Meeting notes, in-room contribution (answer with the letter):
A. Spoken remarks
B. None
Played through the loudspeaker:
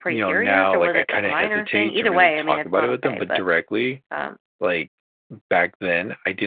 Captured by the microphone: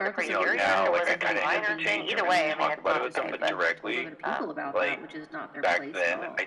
A